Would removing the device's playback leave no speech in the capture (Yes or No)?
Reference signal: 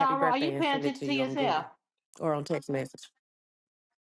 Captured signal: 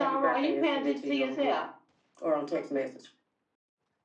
Yes